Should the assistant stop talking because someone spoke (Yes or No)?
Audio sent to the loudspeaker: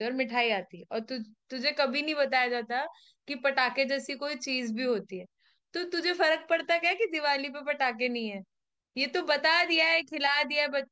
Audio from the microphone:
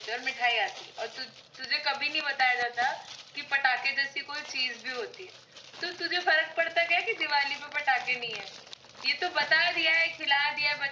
No